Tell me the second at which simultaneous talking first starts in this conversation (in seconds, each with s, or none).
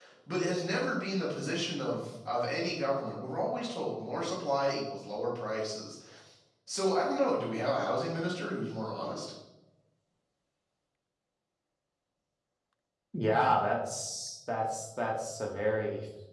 none